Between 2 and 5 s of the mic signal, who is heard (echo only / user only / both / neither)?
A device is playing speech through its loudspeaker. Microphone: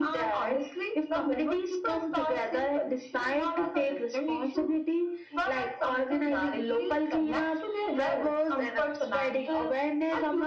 echo only